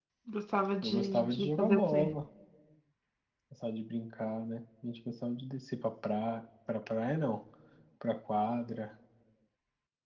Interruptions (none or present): present